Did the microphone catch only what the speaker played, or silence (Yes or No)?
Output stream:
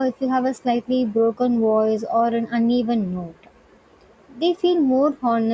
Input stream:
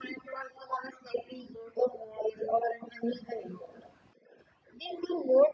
Yes